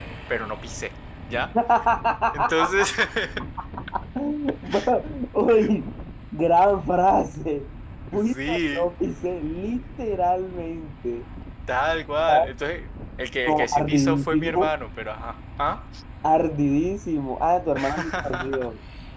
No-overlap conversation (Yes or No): No